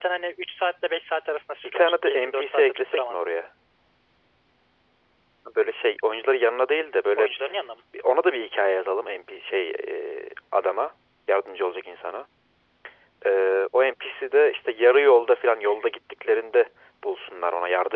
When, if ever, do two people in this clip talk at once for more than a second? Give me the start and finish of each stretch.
1.6-3.3

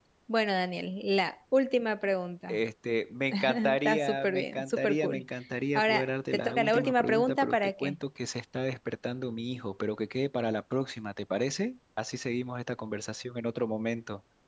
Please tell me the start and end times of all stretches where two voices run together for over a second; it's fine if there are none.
3.3-5.2, 5.8-8.0

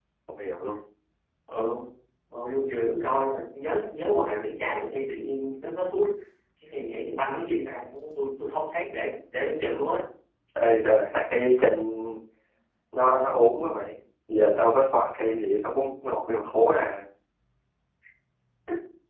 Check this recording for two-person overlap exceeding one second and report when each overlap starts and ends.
none

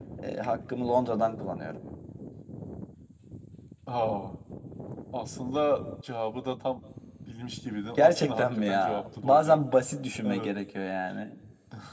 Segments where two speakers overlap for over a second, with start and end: 8.0-9.6

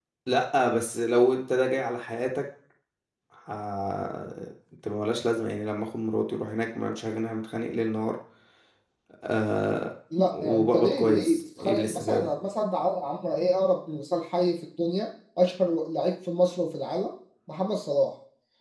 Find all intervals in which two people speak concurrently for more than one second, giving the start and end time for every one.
10.3-12.3

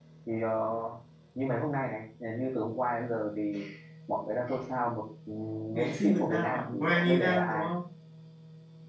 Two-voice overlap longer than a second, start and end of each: 5.7-7.7

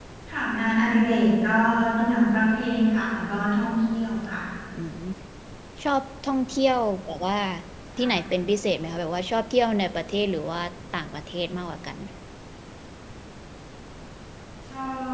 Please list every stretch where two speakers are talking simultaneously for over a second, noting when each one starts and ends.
none

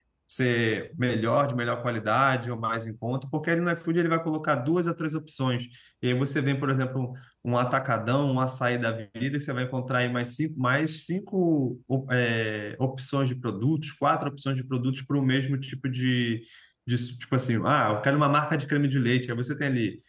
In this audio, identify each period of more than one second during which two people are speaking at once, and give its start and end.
none

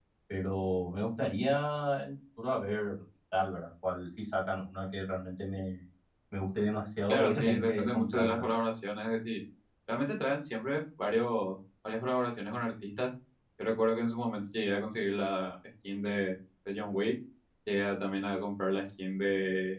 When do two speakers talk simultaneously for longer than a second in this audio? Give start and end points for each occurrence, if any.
7.1-8.4

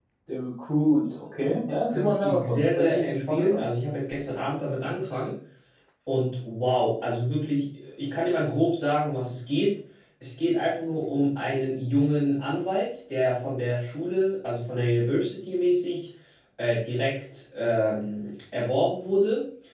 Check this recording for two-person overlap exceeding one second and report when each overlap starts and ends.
1.9-3.6

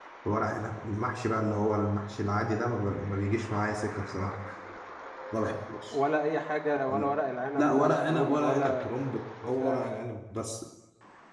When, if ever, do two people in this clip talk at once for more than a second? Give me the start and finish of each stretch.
7.5-8.8

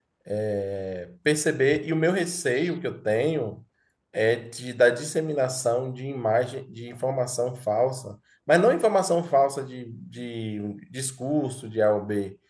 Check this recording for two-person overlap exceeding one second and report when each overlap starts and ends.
none

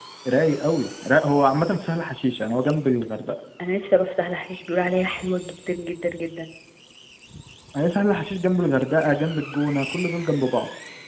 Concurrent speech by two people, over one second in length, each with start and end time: none

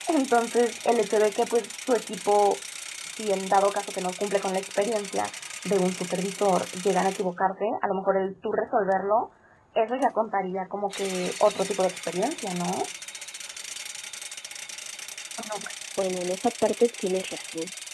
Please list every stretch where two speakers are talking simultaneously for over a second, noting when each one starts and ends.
none

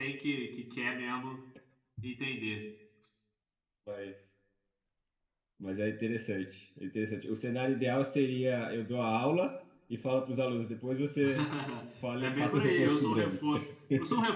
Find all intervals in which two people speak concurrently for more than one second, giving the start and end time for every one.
12.2-13.4

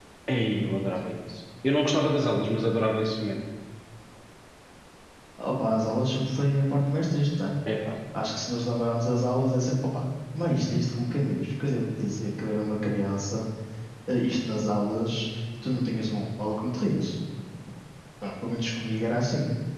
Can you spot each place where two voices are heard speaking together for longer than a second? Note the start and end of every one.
none

